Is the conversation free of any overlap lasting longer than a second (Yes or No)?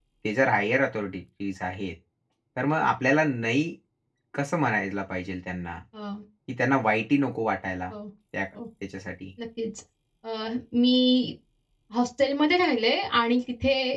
Yes